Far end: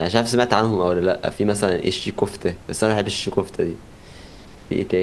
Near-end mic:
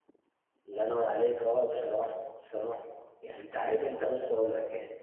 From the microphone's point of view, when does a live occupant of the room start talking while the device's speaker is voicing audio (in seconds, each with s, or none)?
0.7 s